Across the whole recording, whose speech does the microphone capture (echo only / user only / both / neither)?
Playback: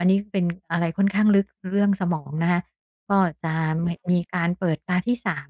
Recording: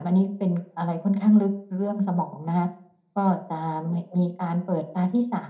echo only